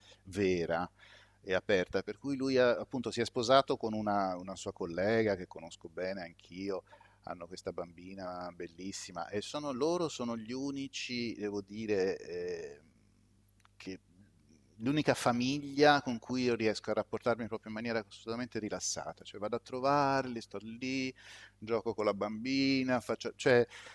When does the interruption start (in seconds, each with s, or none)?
none